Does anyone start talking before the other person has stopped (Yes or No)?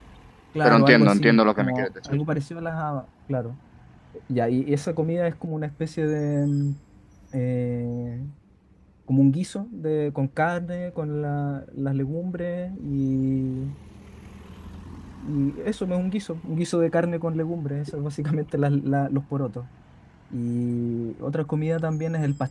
Yes